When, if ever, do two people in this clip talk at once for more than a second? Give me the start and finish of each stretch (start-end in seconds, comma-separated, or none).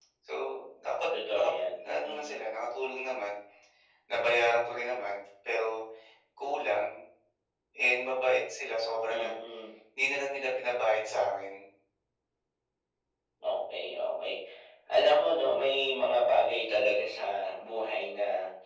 1.1-2.4